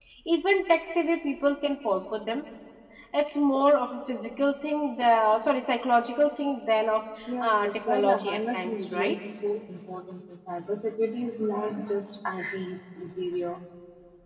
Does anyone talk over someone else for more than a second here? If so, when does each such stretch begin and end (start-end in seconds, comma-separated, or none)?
7.4-9.2